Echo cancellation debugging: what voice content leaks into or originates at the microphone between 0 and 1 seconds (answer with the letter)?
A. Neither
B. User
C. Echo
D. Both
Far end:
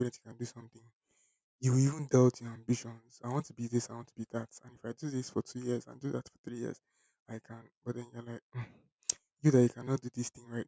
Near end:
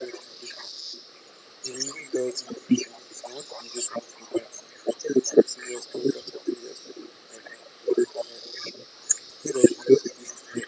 C